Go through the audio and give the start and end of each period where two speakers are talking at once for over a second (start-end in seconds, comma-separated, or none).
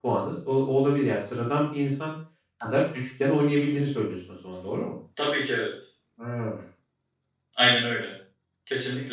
none